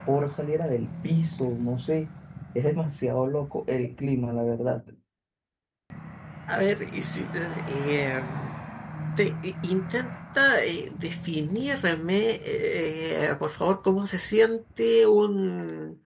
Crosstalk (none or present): none